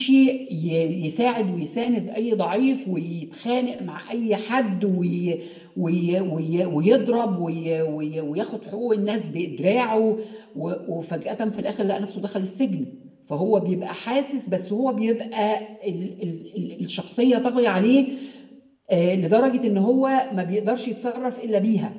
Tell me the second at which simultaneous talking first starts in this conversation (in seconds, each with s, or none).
none